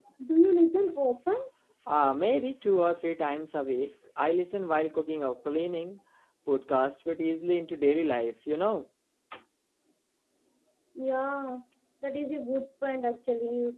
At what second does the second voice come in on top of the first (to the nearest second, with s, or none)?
none